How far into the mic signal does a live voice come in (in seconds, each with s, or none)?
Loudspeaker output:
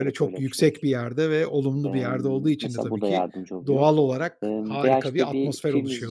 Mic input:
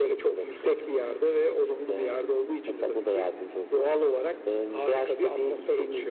none